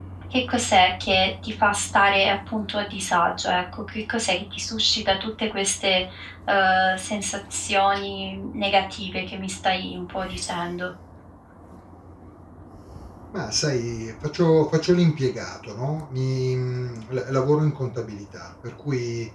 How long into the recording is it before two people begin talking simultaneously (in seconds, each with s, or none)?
none